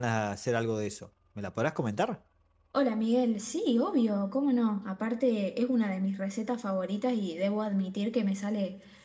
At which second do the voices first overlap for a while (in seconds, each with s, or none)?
none